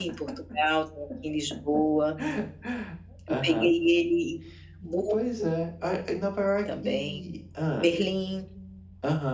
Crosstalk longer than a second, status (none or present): none